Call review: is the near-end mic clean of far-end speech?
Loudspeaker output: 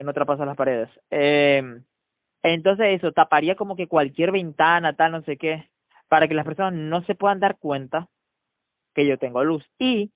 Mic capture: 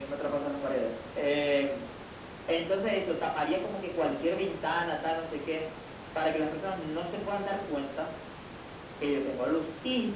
No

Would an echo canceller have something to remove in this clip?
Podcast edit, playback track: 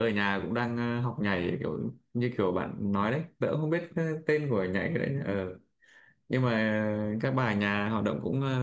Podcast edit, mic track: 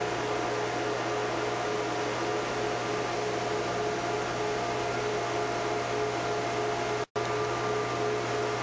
No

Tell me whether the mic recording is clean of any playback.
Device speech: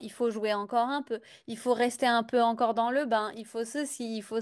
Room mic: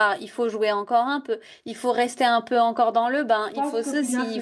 No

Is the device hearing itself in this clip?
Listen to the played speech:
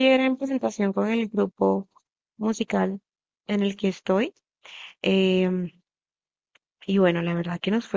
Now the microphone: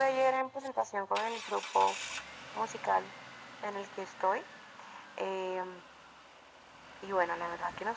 Yes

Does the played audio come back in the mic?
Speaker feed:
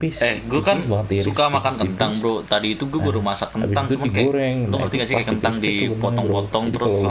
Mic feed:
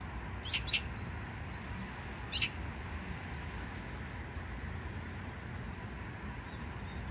No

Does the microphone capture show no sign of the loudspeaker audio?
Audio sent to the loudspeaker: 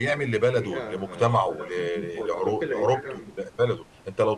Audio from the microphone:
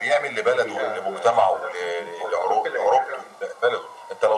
No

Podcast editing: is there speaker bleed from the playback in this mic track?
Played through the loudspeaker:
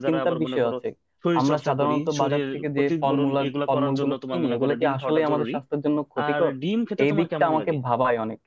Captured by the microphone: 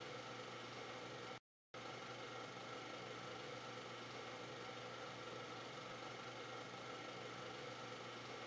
No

